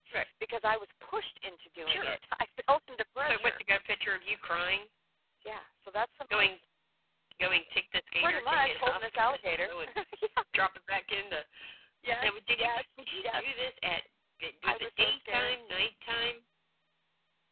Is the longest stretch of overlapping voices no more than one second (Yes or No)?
No